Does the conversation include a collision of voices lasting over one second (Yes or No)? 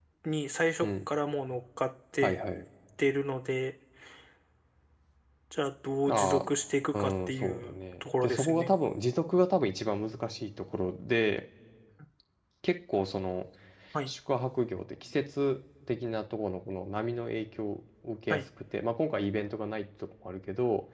Yes